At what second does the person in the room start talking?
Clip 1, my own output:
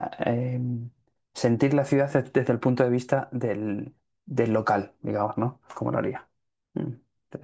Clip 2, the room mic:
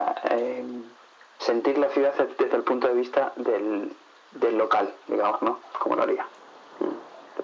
none

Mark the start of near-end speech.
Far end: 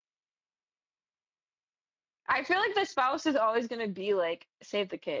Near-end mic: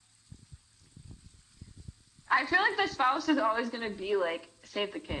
none

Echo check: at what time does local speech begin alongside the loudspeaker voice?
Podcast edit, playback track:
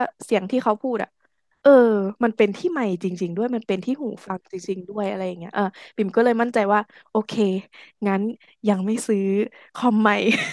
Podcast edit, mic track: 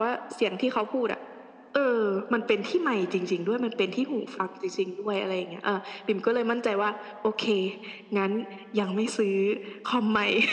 none

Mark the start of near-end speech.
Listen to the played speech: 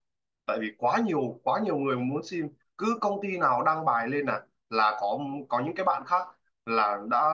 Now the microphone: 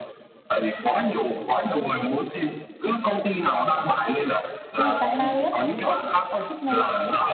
4.7 s

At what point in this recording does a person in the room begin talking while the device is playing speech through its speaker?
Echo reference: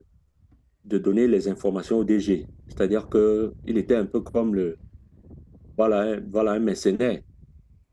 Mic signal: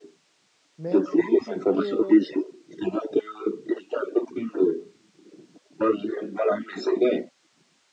0.8 s

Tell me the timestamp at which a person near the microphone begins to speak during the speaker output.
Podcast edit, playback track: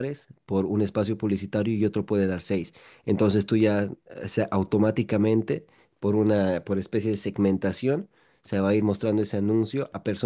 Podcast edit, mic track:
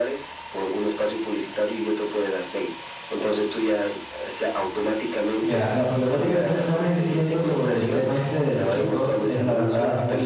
5.4 s

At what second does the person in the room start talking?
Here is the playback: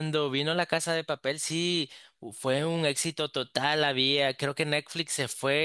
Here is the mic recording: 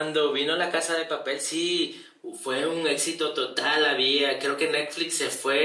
none

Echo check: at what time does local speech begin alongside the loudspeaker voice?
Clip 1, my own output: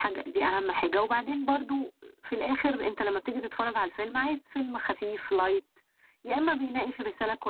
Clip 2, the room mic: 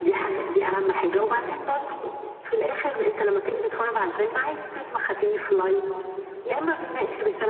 none

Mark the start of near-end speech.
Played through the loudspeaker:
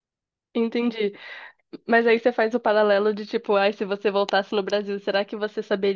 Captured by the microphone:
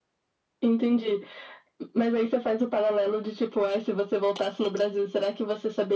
none

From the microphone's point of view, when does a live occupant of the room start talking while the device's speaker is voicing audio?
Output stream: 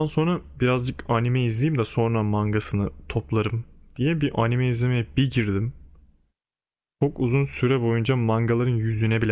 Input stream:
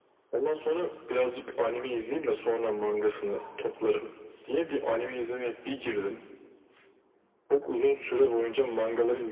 none

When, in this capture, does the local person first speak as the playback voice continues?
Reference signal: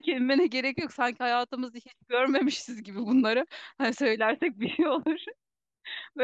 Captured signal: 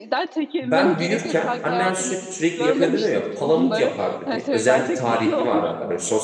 0.6 s

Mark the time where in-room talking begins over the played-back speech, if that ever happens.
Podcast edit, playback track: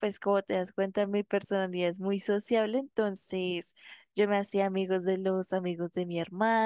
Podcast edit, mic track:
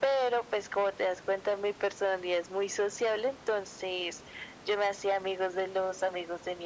none

